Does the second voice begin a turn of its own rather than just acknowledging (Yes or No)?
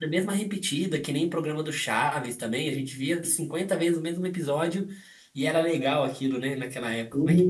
Yes